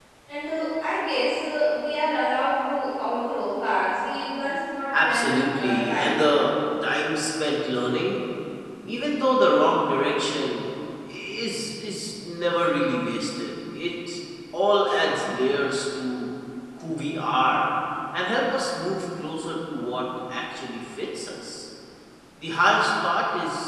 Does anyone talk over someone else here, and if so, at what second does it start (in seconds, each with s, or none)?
4.9 s